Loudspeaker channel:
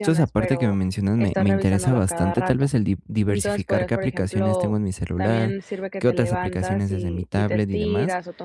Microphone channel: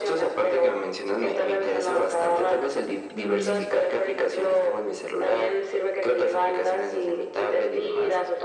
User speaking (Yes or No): Yes